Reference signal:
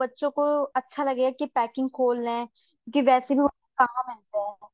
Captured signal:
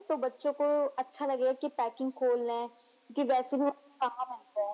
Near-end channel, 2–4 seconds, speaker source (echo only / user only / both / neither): echo only